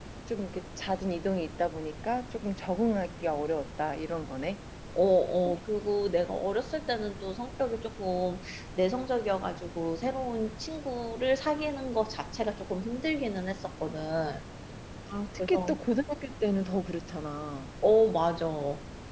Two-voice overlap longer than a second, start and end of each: none

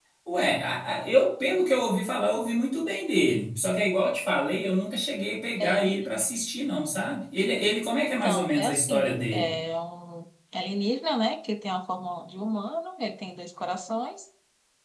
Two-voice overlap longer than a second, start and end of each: 8.0-9.5

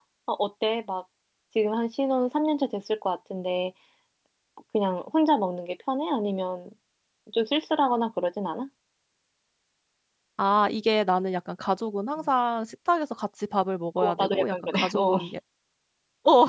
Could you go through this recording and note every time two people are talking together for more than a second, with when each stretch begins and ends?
14.0-15.2

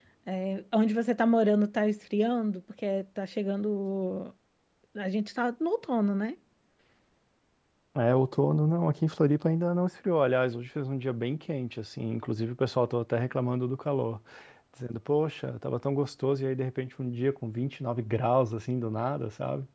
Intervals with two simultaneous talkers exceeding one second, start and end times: none

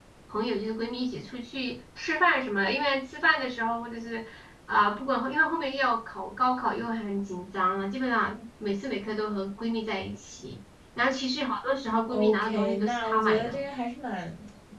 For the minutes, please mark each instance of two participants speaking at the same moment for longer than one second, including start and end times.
12.1-13.6

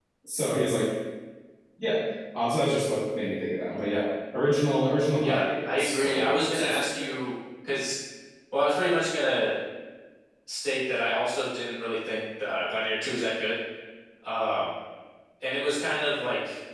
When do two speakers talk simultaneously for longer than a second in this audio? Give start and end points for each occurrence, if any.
5.2-7.1

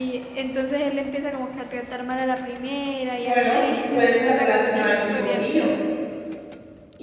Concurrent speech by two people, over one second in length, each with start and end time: 3.1-5.4

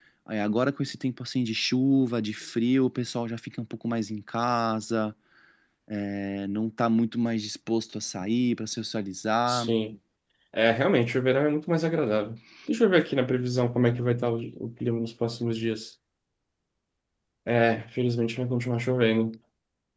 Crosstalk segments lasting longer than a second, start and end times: none

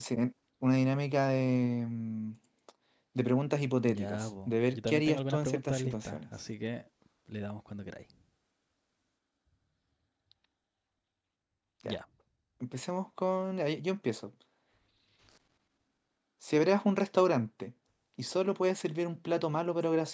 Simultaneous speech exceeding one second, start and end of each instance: 3.9-6.2

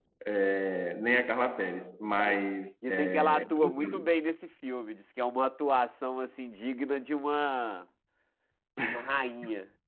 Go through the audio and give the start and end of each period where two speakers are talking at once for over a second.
2.9-4.1

